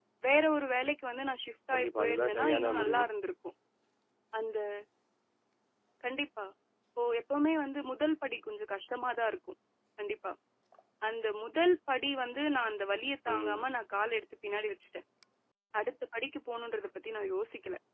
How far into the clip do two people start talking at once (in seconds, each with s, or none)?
1.7 s